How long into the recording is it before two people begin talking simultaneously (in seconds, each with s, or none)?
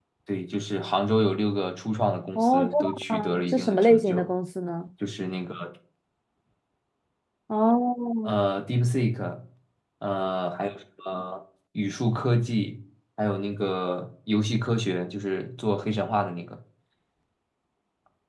2.4 s